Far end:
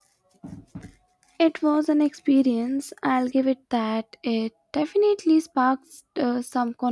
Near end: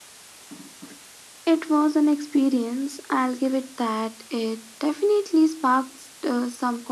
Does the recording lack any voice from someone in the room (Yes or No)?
Yes